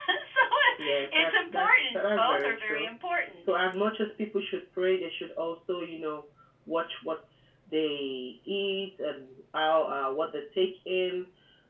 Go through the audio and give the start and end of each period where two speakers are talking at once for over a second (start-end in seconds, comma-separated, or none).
1.1-2.9